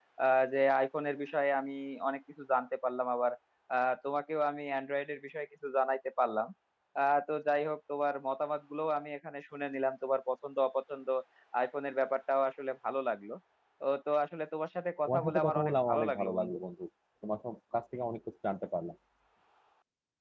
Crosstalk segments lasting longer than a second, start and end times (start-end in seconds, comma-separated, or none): 15.1-16.5